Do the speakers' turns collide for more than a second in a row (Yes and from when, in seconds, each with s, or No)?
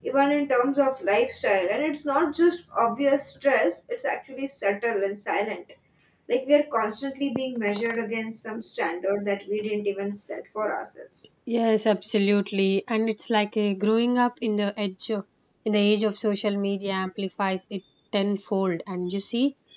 No